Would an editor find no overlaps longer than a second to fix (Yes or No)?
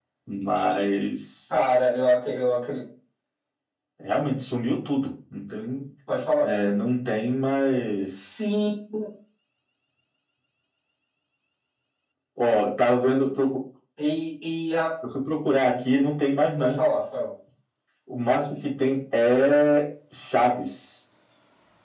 Yes